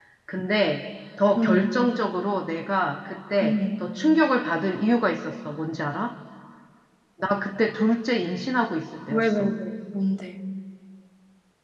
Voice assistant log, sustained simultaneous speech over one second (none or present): none